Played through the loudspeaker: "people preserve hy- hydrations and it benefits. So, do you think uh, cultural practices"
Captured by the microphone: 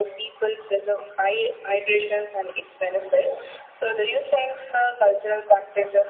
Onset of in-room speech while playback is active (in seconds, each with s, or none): none